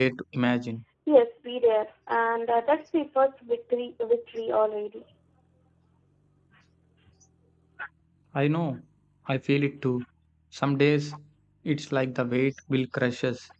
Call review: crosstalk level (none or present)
none